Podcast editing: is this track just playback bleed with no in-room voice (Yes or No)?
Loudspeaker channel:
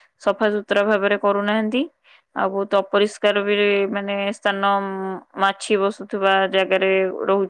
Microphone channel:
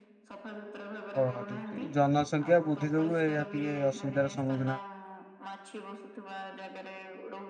No